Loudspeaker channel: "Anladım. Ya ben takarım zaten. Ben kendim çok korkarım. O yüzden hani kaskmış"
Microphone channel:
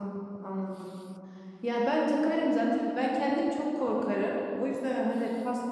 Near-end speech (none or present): none